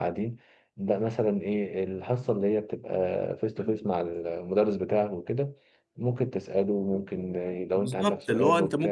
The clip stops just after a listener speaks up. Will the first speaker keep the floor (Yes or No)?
No